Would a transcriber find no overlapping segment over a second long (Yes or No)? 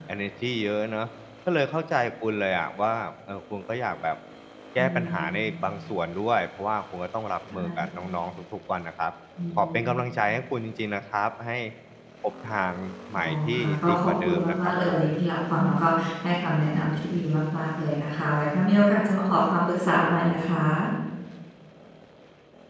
No